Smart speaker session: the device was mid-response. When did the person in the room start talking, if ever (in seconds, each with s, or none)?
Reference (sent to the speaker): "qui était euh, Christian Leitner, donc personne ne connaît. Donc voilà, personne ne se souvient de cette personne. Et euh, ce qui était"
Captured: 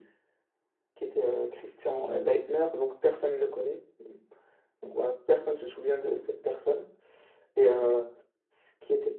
none